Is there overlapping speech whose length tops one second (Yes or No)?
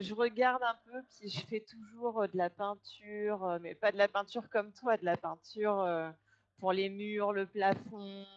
No